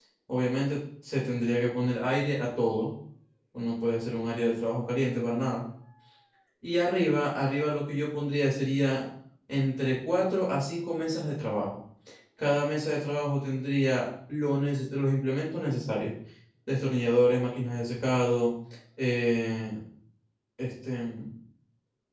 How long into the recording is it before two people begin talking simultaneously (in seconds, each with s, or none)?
none